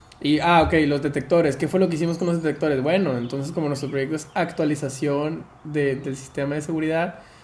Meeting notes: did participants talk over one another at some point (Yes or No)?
No